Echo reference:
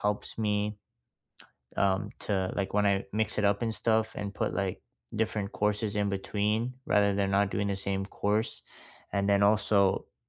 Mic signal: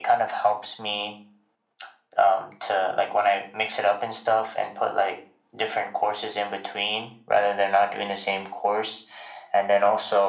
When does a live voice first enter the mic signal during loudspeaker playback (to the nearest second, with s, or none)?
none